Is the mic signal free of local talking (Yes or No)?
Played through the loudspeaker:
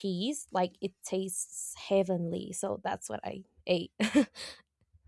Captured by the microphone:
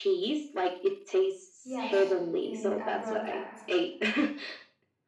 No